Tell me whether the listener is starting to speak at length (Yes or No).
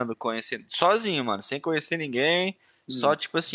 No